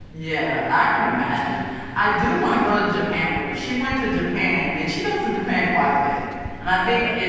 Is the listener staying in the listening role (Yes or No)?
Yes